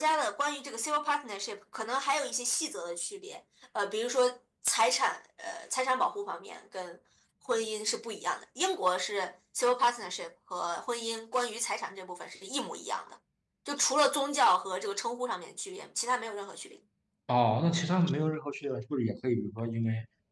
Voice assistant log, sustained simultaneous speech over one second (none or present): none